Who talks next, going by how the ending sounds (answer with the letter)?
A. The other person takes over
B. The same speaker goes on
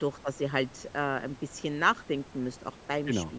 A